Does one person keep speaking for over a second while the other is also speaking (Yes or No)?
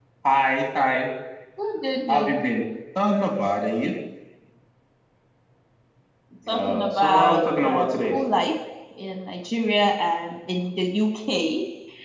Yes